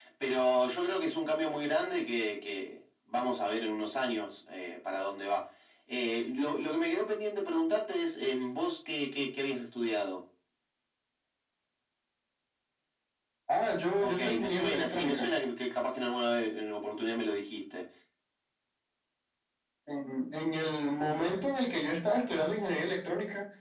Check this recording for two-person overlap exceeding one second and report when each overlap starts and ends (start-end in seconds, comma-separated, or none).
14.0-15.3